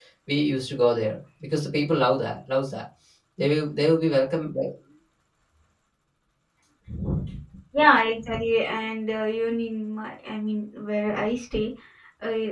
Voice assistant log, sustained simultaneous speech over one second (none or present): none